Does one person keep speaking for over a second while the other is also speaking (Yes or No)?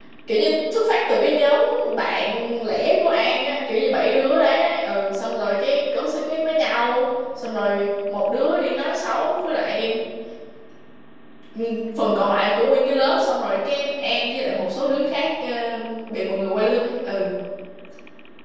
No